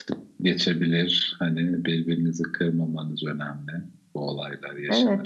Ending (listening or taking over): taking over